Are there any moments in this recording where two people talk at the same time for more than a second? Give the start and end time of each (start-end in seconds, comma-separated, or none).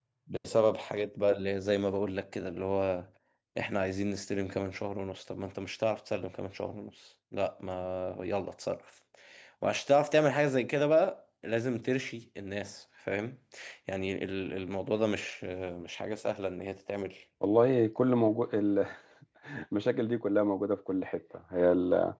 none